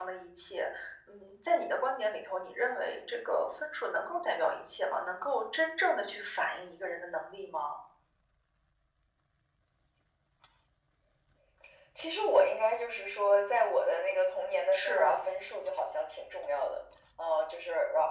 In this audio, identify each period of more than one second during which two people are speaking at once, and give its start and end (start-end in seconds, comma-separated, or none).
none